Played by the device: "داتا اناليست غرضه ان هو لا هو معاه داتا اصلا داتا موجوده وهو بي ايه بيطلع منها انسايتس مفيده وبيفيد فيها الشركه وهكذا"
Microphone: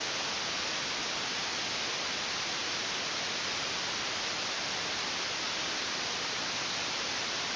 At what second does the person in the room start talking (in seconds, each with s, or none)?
none